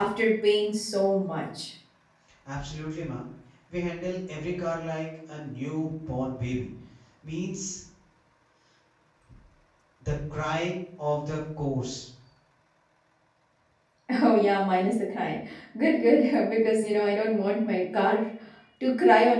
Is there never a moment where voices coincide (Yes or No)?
Yes